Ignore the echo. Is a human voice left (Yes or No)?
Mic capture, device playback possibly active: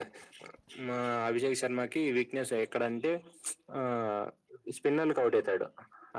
No